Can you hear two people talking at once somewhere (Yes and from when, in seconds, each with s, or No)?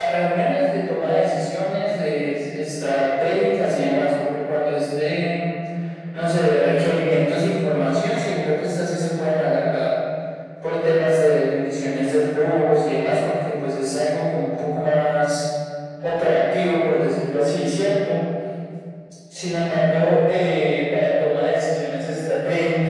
No